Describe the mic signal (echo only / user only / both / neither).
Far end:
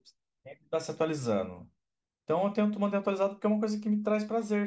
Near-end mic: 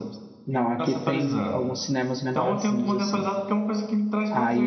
both